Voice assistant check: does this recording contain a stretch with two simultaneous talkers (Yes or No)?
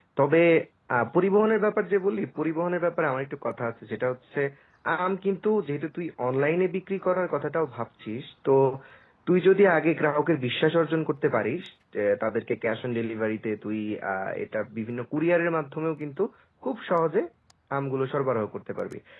No